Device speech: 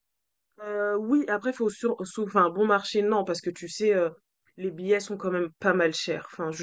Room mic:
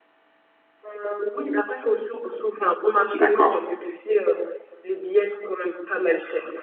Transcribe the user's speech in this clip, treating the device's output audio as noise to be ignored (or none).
D'accord.